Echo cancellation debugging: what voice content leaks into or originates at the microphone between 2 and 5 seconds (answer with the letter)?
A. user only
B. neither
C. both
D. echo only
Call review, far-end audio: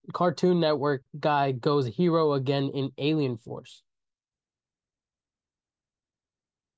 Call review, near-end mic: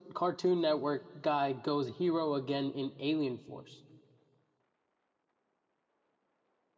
D